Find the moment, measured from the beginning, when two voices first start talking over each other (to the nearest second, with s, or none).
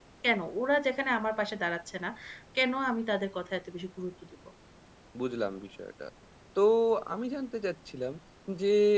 none